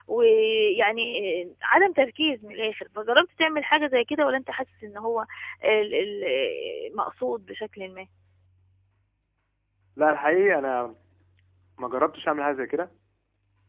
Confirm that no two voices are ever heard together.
Yes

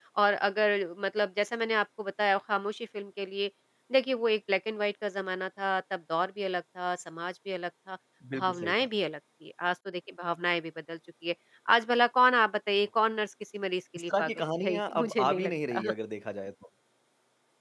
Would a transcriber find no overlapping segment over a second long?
No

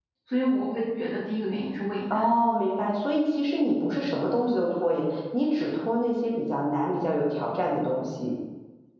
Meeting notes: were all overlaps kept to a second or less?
Yes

